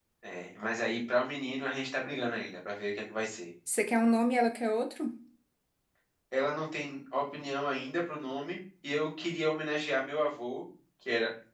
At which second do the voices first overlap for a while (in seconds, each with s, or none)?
none